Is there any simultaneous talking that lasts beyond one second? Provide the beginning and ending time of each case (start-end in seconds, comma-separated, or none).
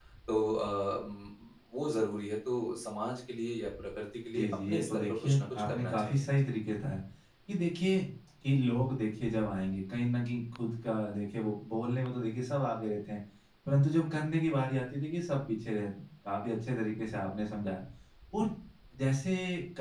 4.3-6.2